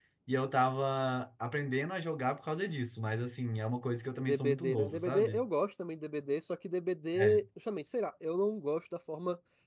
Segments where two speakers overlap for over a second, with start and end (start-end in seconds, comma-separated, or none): 4.2-5.4